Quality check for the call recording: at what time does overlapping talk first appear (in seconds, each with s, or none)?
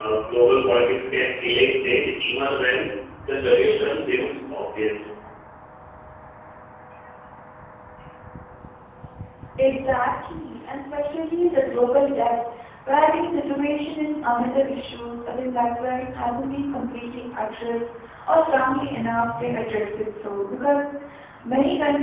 none